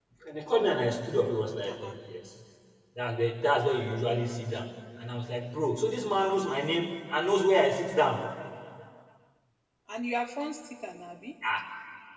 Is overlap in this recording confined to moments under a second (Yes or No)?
Yes